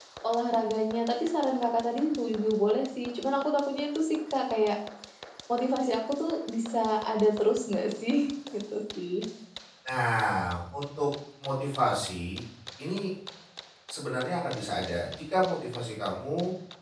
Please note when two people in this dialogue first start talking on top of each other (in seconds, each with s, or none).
none